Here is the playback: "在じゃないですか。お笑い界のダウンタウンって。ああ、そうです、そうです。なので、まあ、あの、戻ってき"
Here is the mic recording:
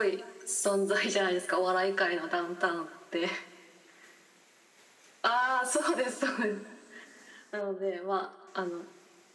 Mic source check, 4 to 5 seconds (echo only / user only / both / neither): neither